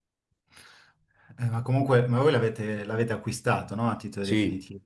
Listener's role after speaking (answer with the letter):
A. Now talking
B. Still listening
A